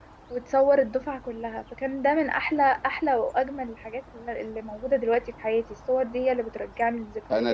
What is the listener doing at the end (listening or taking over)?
taking over